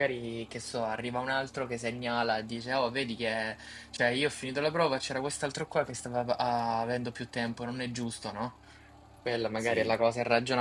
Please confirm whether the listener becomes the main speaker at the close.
No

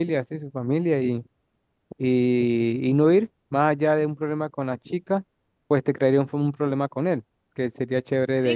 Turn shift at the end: Yes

